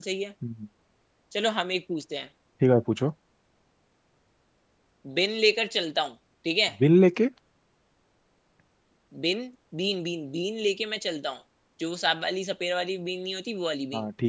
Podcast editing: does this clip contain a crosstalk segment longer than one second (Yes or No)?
No